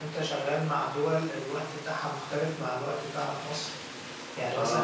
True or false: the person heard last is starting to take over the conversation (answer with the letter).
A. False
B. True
A